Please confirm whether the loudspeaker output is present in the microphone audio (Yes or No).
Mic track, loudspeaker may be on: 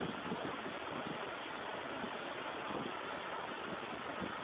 No